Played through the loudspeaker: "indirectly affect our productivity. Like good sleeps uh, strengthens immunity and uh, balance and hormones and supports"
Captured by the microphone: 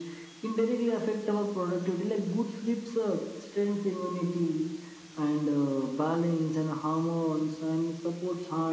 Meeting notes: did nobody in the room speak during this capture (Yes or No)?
Yes